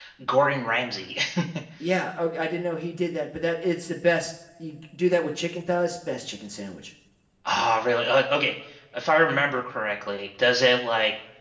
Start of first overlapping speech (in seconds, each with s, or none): none